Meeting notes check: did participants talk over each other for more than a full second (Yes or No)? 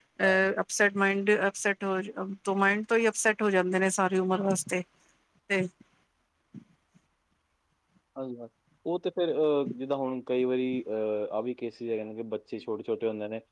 No